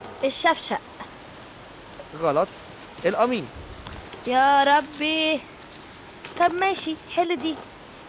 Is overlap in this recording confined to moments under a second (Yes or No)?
Yes